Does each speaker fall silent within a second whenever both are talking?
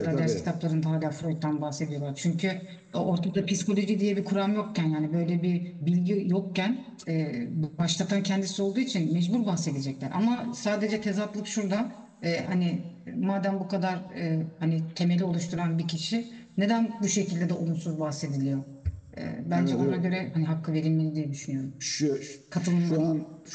Yes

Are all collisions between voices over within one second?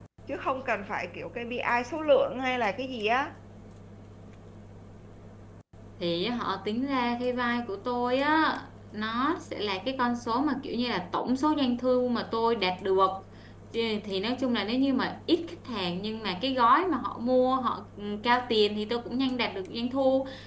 Yes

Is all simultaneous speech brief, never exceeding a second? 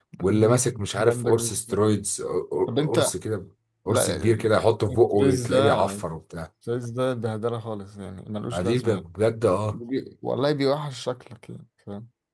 No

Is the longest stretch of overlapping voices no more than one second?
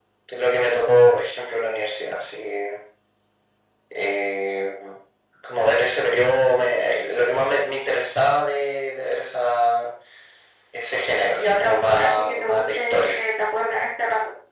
No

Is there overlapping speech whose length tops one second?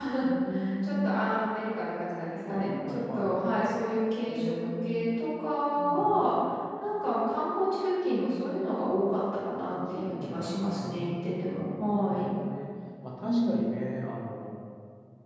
Yes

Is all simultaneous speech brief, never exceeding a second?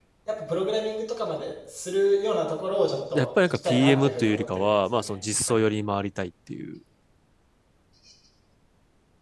No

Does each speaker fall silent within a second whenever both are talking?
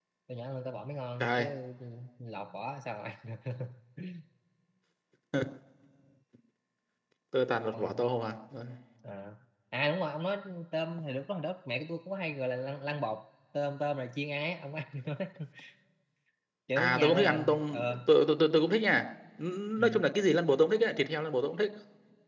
No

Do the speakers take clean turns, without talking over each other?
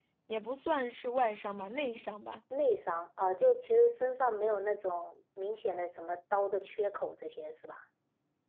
Yes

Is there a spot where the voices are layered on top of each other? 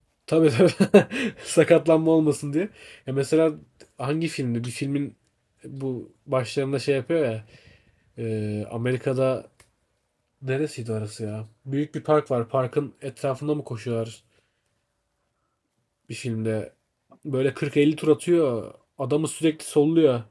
No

